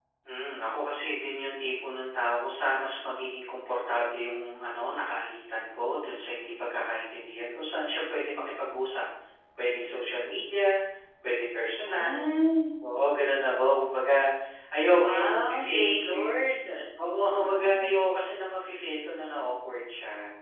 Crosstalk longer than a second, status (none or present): present